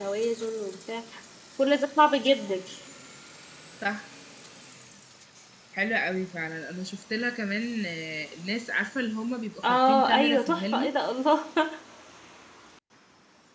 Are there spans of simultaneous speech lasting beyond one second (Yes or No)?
Yes